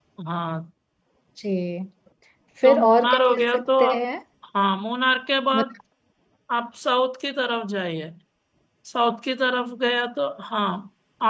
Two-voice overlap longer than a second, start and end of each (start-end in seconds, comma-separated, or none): 2.6-4.0